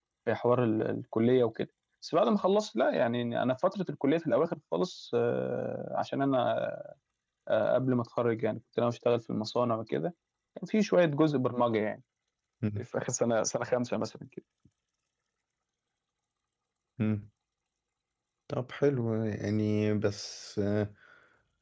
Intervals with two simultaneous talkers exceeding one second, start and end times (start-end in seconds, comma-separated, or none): none